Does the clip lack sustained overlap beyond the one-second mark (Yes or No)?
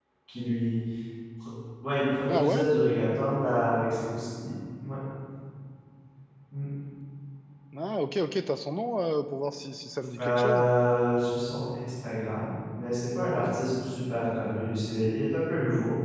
Yes